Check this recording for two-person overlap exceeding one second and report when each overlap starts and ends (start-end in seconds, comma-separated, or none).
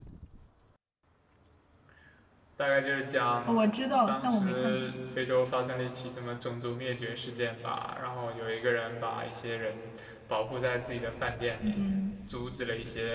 3.5-4.8